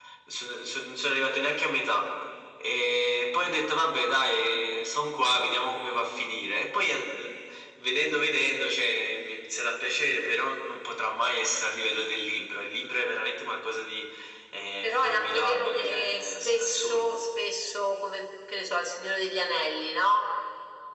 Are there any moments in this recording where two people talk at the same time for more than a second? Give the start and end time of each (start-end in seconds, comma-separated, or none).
14.8-17.1